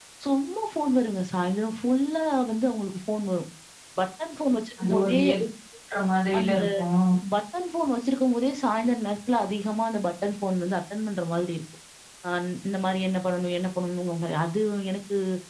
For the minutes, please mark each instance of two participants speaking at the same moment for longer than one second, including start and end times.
none

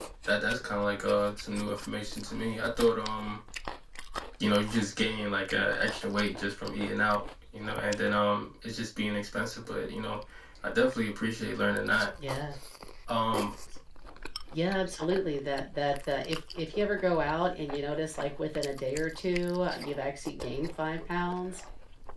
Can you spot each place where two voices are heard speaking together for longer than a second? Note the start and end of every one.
none

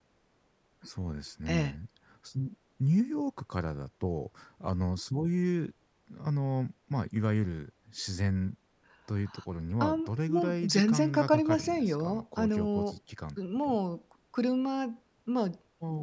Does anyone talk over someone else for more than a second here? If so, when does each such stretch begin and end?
9.8-13.0

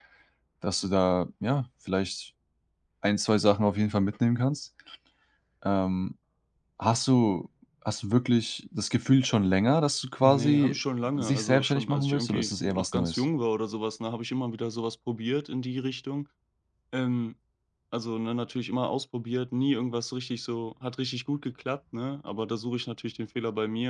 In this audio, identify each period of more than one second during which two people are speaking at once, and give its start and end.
11.2-13.2

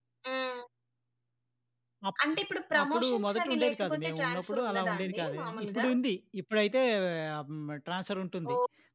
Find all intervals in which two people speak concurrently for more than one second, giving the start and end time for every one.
2.8-5.9

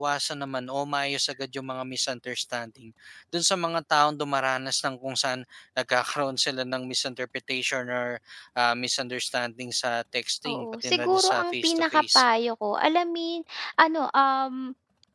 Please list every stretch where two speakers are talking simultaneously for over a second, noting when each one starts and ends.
10.5-12.2

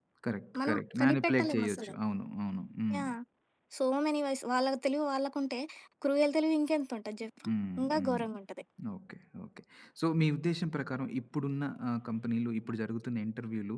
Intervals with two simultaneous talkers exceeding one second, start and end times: 0.6-1.9

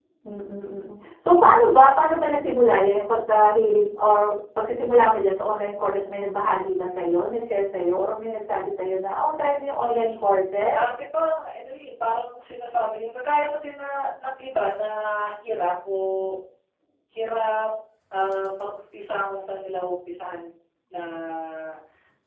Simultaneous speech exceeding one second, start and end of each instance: none

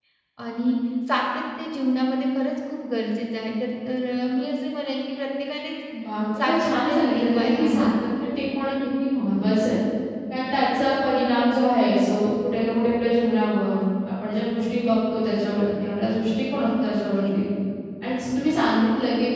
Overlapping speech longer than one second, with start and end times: 6.4-7.9

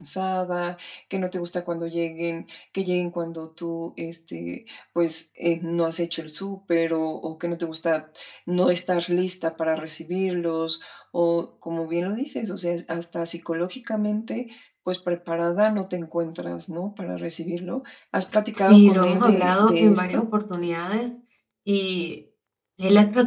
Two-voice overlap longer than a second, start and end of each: 18.7-20.2

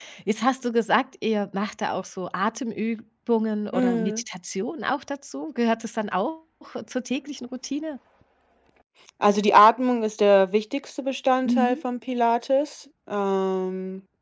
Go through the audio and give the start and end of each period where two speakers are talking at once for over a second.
none

